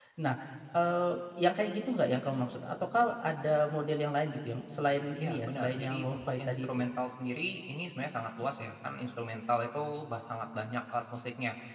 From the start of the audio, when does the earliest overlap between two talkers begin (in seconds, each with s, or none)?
5.2 s